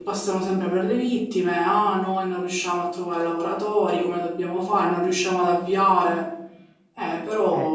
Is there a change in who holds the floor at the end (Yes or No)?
Yes